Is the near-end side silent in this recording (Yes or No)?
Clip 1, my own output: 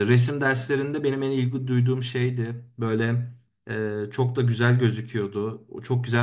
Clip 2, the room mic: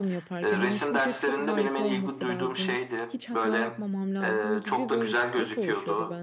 No